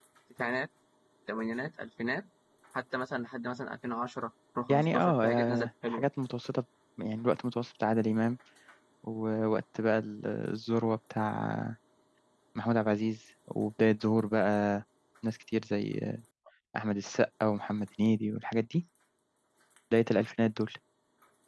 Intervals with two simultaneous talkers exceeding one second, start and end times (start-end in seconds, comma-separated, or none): 4.7-6.1